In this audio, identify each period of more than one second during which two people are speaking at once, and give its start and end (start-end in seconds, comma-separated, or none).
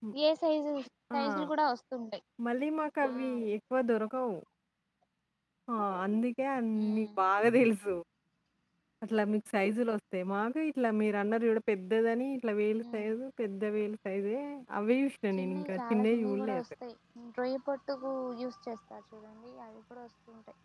15.4-16.6